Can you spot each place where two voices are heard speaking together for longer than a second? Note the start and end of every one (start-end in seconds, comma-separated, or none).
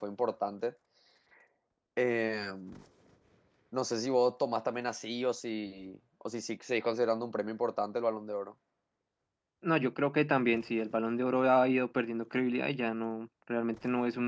none